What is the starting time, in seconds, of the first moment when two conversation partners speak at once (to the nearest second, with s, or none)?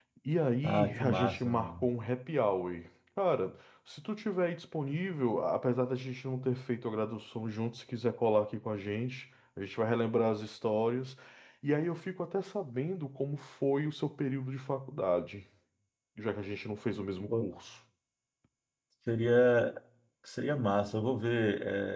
1 s